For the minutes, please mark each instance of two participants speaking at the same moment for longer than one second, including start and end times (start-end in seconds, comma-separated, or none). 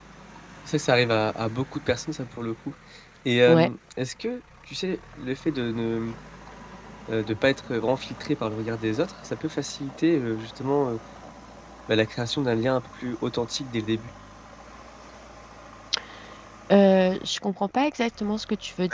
none